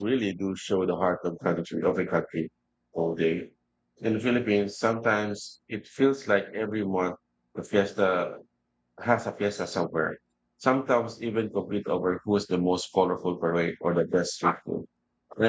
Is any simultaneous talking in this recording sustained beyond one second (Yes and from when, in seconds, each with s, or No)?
No